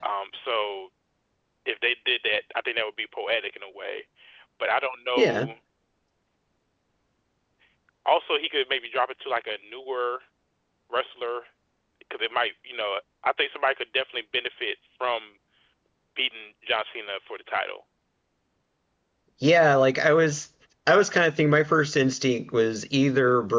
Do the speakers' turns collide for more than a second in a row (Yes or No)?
No